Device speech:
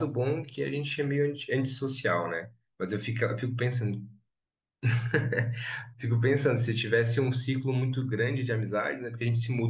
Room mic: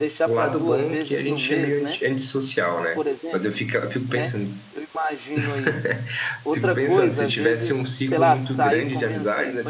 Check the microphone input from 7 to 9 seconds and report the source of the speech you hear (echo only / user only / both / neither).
both